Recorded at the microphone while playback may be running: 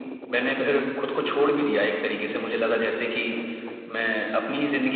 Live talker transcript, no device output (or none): none